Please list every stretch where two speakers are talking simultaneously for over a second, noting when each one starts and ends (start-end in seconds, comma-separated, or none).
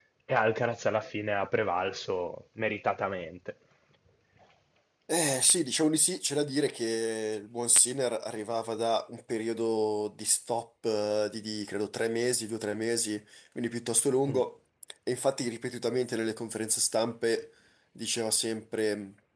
none